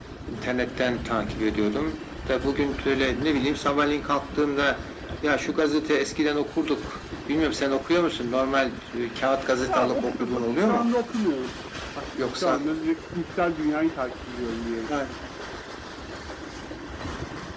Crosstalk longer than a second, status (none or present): present